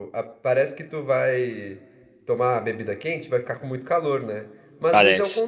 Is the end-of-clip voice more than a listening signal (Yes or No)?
No